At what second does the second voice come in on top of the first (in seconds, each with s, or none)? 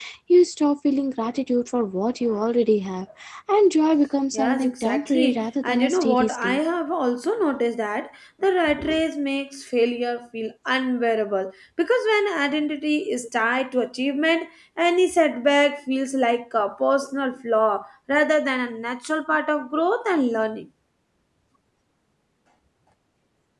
4.3 s